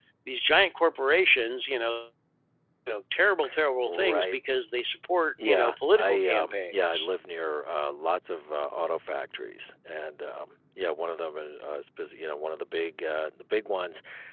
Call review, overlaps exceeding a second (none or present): present